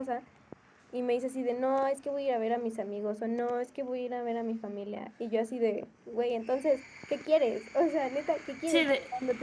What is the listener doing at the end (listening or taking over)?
listening